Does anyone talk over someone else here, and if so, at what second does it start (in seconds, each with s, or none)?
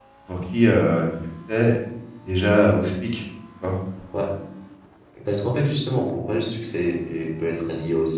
none